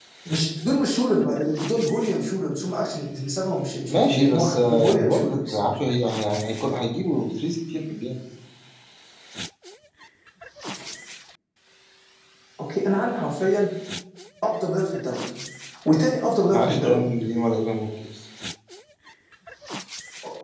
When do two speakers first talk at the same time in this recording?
3.9 s

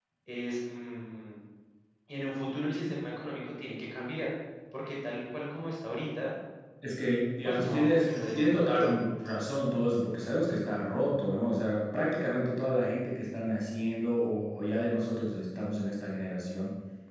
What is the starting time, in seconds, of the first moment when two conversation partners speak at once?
7.5 s

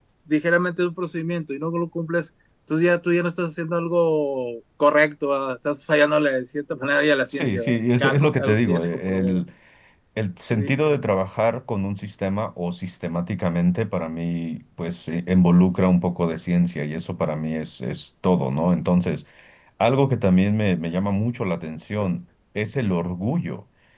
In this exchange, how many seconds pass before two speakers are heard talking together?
7.3 s

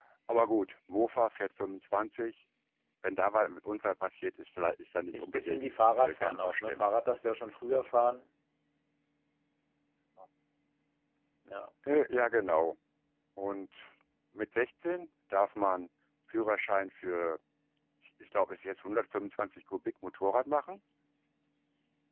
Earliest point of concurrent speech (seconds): 5.1 s

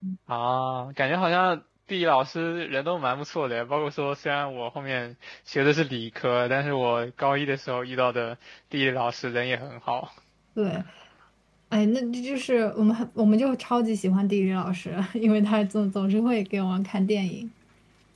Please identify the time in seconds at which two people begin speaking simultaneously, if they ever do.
none

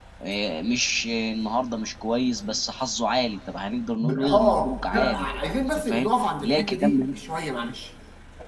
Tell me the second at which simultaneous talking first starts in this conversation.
4.0 s

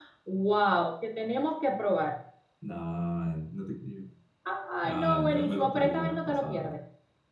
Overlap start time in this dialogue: 4.8 s

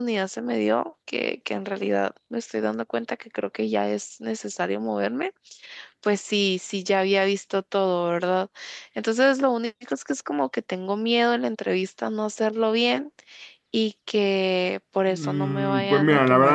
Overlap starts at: 15.1 s

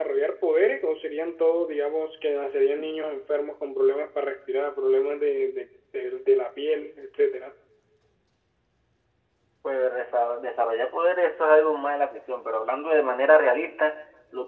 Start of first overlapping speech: none

